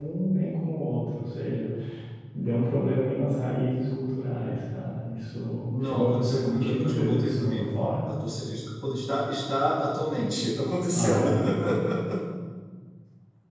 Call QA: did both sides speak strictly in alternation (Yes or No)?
No